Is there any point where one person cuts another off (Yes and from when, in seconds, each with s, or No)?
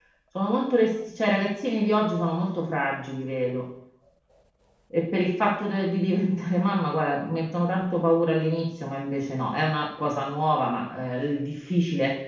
No